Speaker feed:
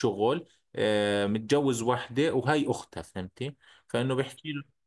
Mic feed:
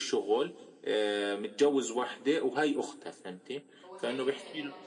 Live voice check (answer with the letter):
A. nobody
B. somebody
B